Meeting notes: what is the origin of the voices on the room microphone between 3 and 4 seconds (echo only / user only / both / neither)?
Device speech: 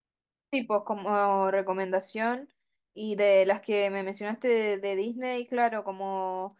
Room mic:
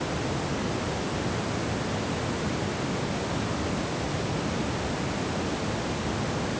neither